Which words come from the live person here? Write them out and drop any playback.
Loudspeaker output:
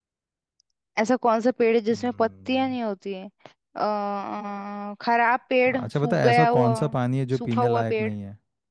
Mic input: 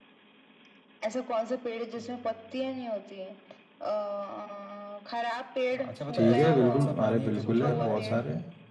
ठीक है बिल्कुल अरे बिल्कुल है बहुत सारे

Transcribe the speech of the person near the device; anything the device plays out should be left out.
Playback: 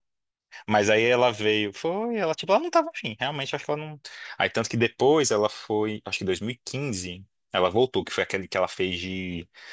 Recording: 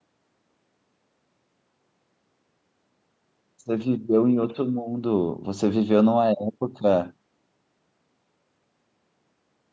Você viveu em outro mundo. Você viveu numa época.

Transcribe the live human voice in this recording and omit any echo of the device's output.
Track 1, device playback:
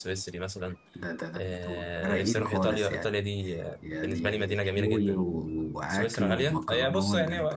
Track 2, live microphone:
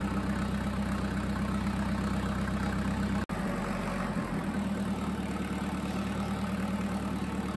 none

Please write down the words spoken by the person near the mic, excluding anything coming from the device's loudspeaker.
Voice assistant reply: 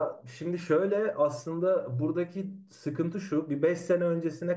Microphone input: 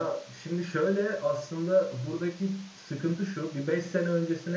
none

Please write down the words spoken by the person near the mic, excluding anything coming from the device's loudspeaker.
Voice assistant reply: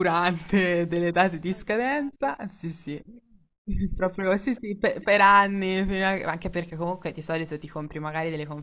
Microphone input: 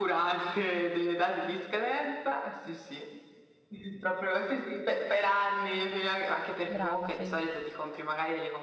brava, fai bene.

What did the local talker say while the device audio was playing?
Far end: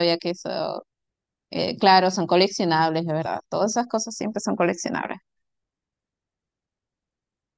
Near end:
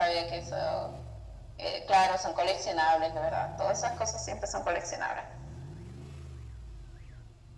none

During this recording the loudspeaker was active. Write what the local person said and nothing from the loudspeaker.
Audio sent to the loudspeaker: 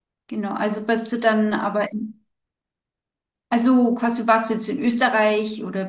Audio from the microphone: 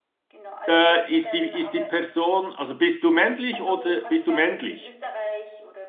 äh, ist die, ist die Person, also bist du männlich oder bist du männlich?

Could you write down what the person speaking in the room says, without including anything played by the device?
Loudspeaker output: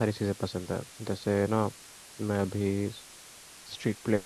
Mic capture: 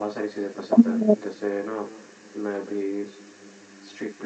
शायद

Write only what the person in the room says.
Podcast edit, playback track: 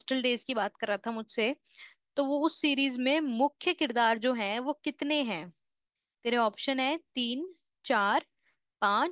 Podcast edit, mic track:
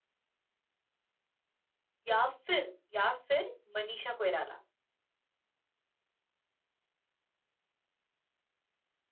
या फिर या फिर मनीषा कोइराला

